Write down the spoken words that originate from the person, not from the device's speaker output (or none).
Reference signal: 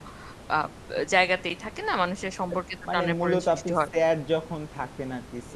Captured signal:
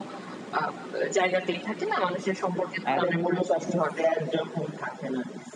একদম, একটা।